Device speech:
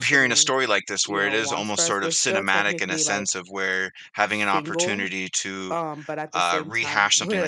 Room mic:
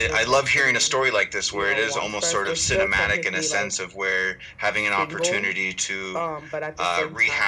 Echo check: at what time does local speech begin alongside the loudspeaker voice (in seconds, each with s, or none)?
none